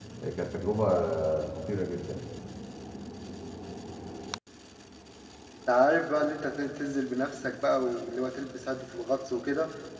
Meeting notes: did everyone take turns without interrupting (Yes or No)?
Yes